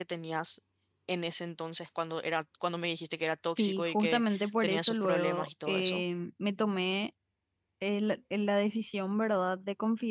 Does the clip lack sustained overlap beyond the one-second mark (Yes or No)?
No